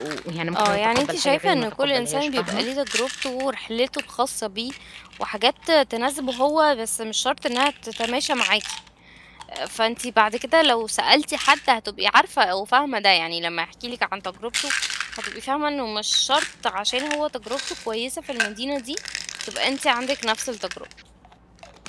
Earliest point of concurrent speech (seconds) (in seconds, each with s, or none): 0.5 s